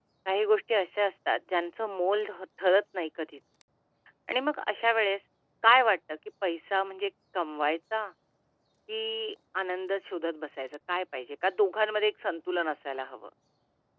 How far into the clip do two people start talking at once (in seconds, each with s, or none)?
none